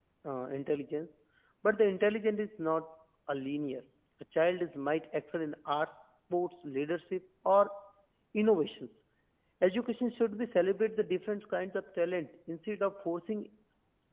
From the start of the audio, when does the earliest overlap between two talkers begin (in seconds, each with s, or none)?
none